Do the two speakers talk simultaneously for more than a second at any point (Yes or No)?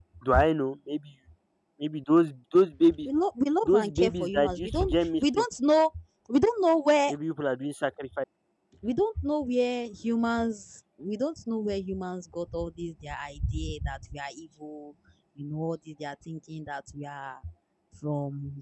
Yes